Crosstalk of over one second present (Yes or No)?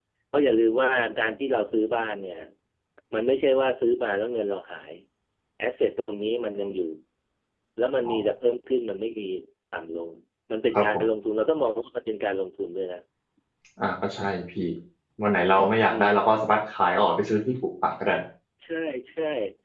No